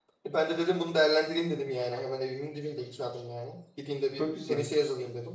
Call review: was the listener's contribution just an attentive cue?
Yes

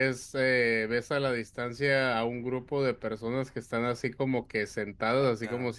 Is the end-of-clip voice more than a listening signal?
No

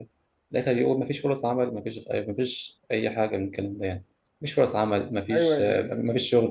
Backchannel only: Yes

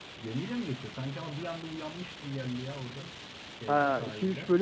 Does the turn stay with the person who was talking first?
No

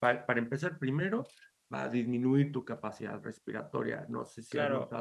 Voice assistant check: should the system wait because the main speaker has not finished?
No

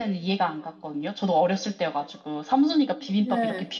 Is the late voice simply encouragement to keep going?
Yes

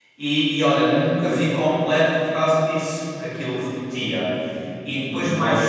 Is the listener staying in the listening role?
Yes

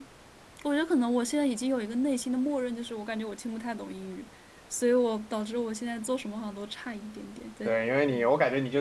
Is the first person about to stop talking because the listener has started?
Yes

